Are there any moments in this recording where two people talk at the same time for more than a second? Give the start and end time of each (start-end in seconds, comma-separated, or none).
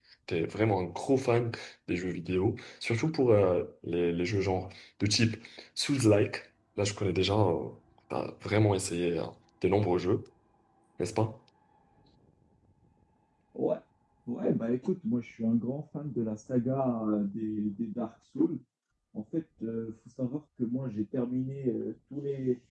none